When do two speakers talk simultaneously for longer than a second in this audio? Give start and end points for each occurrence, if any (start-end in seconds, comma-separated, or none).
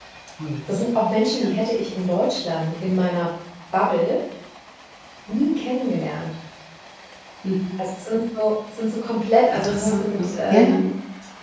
9.5-10.8